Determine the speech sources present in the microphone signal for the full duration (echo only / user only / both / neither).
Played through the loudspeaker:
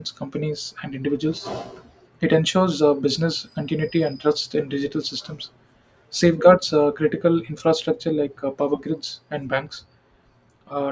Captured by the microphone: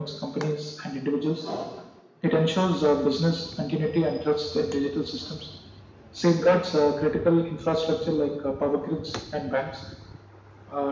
echo only